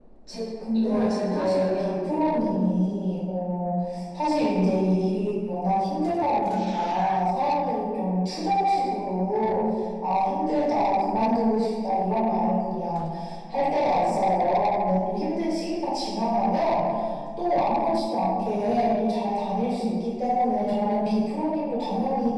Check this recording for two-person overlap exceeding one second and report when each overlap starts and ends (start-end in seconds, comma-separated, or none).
0.7-2.6